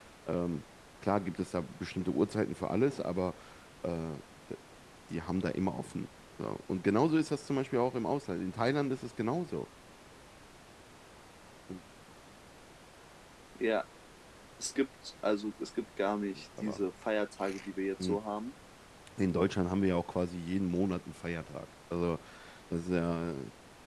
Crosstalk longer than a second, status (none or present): none